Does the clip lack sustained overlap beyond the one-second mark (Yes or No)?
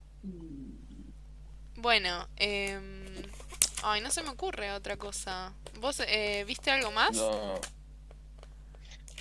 Yes